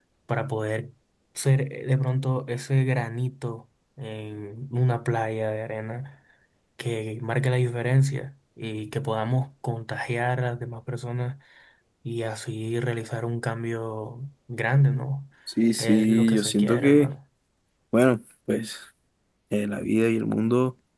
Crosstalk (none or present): present